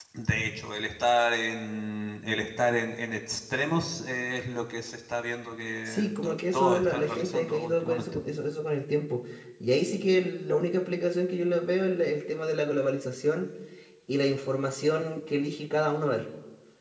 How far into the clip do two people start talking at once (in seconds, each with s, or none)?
5.9 s